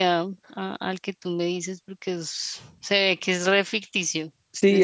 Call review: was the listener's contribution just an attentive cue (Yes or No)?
No